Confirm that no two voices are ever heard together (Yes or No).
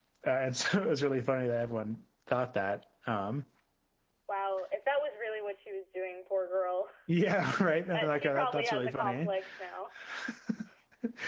No